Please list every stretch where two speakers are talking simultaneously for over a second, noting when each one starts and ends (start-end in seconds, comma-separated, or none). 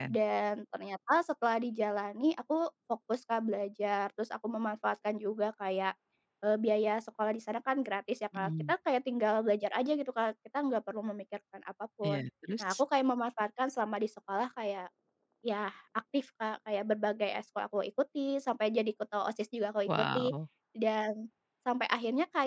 none